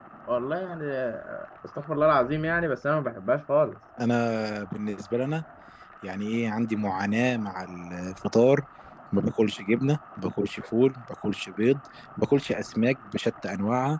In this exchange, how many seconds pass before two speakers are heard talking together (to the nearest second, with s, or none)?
none